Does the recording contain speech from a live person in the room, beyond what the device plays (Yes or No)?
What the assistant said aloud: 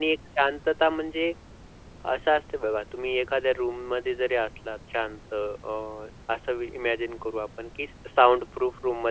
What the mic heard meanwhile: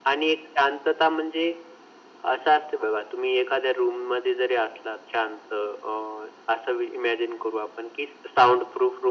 No